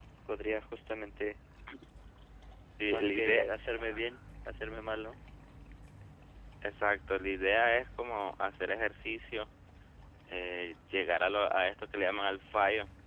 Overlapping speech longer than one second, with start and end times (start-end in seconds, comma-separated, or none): 2.9-4.1